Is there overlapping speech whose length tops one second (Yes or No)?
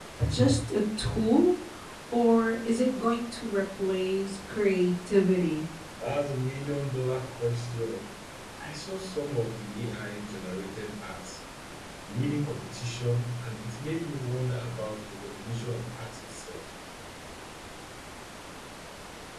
No